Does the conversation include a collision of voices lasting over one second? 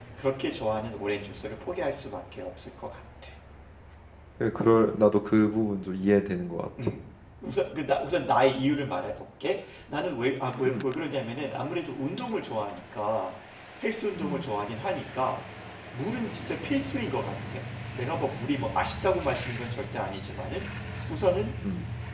No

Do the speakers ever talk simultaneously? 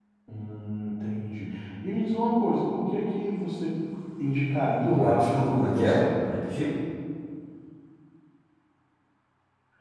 Yes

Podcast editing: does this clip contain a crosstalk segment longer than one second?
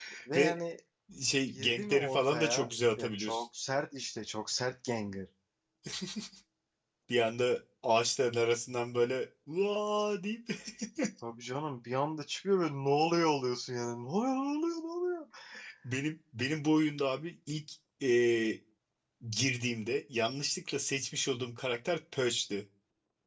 Yes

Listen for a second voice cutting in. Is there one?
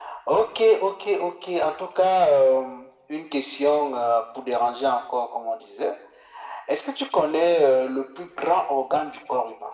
No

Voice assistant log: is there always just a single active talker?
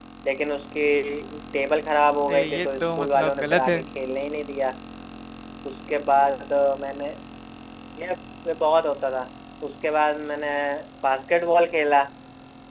No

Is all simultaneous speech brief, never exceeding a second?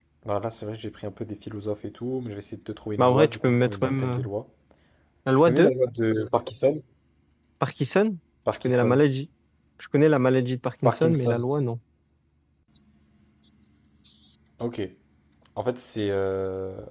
No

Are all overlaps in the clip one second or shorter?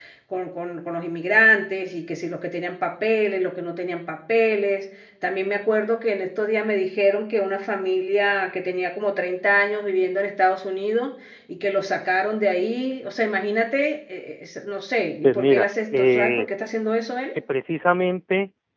No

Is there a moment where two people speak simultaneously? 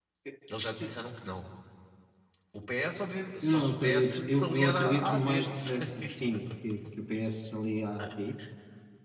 Yes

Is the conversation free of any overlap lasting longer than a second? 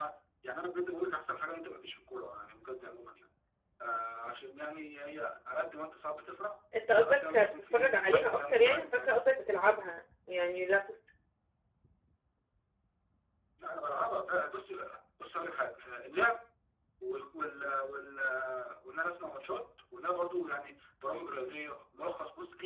No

